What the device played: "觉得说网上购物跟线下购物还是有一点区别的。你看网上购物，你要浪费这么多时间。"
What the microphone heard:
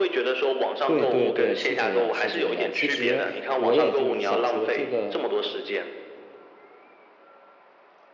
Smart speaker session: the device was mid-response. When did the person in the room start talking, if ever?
0.8 s

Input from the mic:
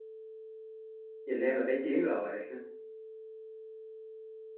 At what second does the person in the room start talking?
1.3 s

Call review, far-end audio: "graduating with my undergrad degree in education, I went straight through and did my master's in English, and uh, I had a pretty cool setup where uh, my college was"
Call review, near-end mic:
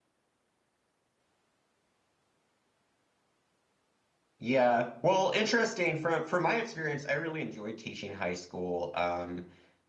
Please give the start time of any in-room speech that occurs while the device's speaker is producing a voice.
4.4 s

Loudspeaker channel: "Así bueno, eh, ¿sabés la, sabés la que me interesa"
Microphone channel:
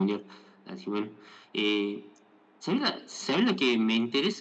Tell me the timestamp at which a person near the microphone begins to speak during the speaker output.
none

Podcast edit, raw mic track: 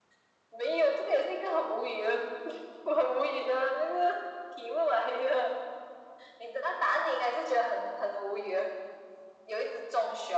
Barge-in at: none

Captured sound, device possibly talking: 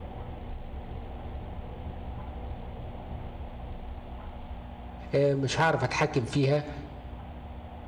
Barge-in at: 5.1 s

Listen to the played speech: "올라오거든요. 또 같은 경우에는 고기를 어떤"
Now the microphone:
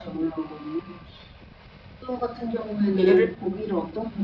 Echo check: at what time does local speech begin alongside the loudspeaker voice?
3.0 s

